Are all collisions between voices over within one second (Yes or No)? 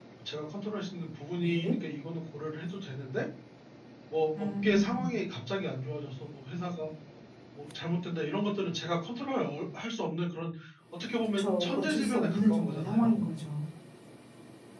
No